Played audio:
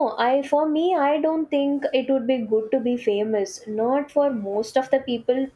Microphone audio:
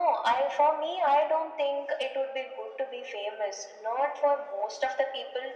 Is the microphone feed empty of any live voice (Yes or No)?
Yes